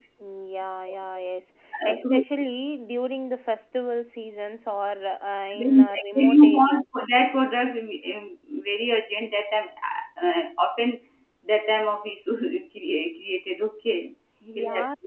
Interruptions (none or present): present